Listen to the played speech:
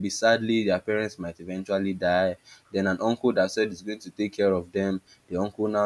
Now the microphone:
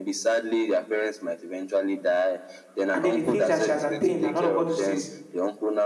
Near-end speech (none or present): present